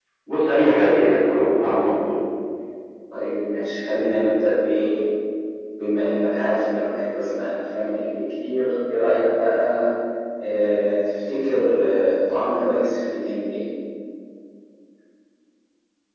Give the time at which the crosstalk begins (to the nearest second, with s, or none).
none